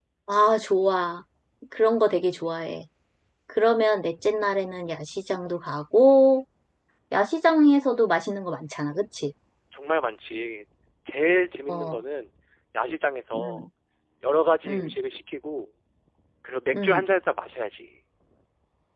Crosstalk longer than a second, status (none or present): none